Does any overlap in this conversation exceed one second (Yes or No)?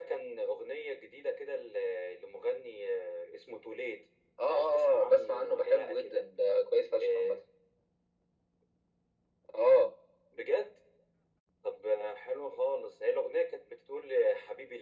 Yes